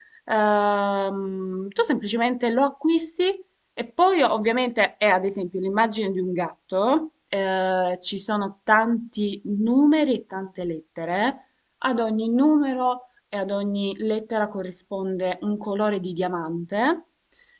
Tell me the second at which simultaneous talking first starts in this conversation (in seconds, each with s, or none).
none